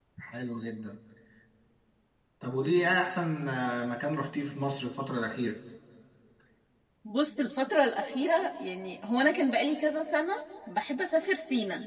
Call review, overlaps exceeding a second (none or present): none